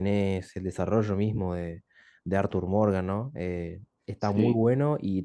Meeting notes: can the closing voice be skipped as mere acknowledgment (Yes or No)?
Yes